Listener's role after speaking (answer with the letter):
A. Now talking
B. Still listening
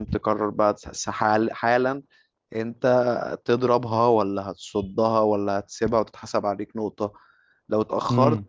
B